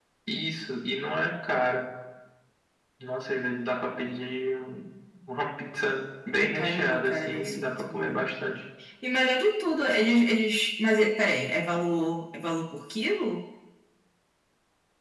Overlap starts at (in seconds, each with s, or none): 6.5 s